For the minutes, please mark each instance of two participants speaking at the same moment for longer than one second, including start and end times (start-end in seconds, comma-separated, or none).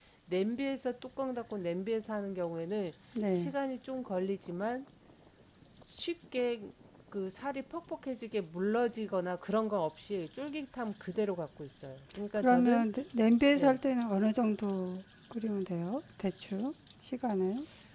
none